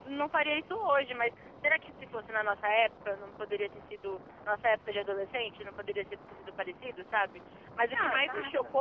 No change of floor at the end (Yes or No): Yes